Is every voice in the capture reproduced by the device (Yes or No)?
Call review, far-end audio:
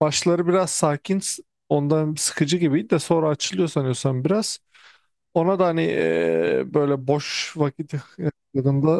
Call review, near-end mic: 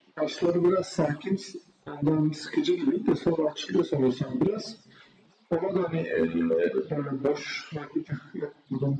Yes